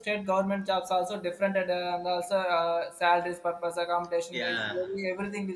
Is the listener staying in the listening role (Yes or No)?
Yes